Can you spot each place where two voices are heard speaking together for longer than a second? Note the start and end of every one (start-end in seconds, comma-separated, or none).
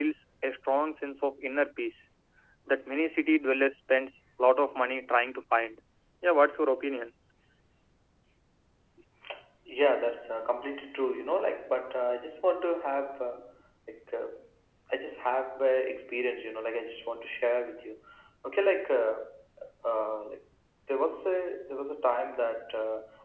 none